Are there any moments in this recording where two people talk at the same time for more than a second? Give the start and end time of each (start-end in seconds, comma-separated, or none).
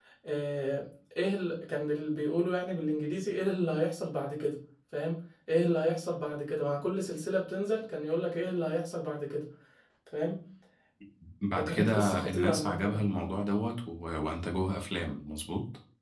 11.7-13.1